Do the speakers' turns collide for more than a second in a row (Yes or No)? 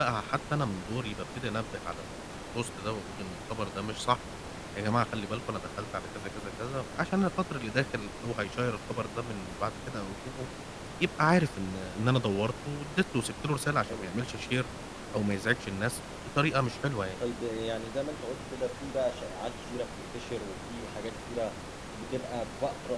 No